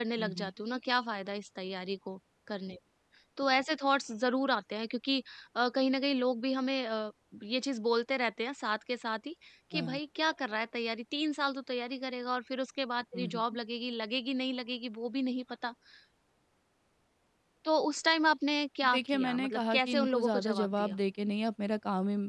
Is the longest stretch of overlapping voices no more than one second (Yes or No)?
No